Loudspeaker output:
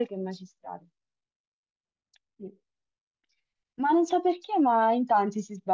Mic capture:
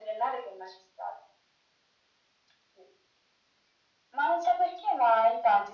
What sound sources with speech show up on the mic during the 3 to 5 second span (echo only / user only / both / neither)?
echo only